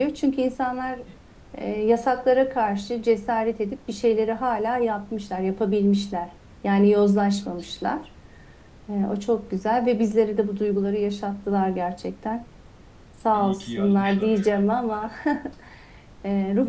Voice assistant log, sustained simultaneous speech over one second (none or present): present